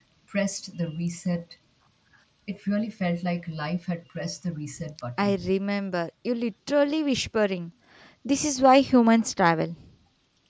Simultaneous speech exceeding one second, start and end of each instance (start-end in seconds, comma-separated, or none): none